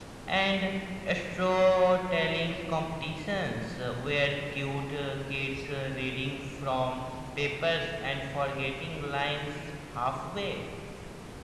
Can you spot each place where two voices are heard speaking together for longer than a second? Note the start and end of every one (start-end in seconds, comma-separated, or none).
none